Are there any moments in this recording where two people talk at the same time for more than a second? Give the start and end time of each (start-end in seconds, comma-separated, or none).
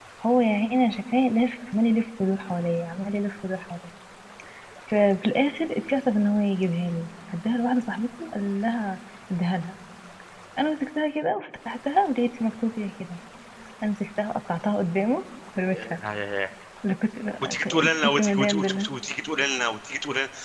17.4-18.9